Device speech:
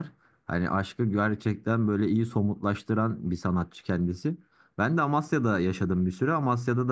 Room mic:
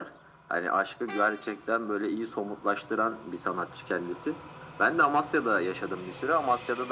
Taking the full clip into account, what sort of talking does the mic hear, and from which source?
echo only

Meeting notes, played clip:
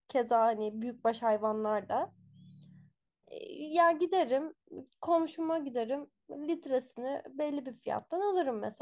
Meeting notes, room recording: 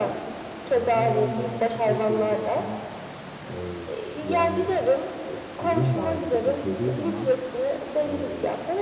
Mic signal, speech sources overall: both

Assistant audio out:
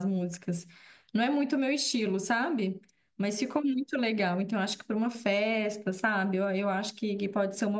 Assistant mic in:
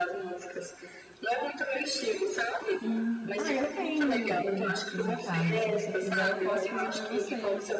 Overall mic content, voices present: both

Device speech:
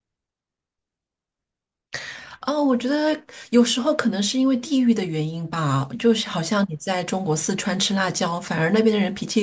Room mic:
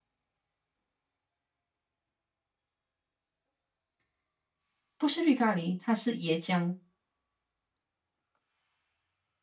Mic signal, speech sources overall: user only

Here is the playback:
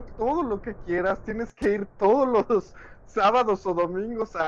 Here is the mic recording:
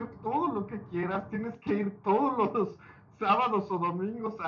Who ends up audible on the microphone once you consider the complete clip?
echo only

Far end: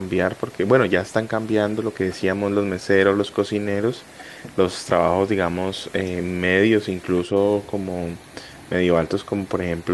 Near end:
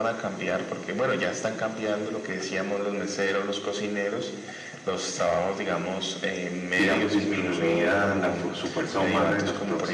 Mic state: both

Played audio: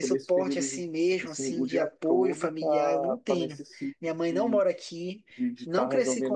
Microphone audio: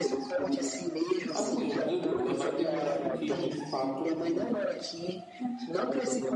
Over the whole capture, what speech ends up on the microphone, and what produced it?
both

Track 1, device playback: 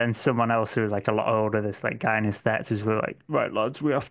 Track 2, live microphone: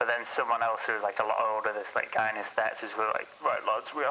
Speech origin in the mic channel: echo only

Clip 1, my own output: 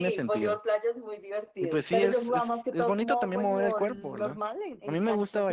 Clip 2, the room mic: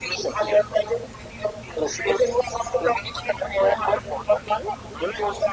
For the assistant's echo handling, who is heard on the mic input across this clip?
echo only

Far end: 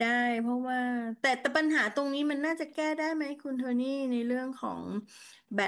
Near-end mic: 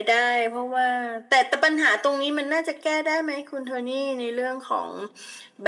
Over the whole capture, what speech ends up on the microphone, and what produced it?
echo only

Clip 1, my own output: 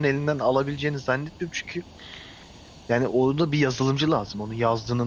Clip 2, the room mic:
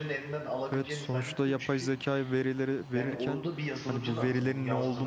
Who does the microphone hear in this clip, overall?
both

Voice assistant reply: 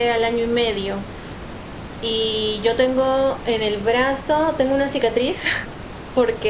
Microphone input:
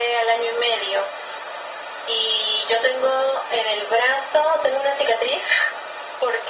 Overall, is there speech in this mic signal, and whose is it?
echo only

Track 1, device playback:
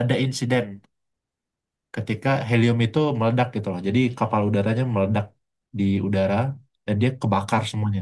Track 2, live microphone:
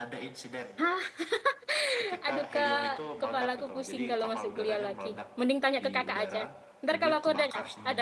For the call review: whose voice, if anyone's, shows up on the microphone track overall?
both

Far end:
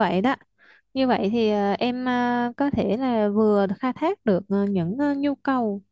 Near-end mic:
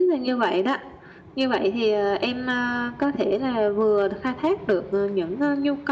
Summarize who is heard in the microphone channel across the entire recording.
echo only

